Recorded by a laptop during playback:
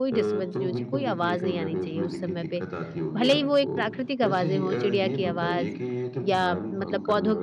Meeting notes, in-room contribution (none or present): present